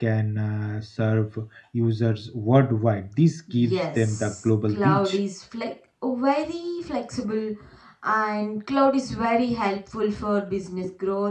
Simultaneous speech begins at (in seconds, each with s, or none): 3.5 s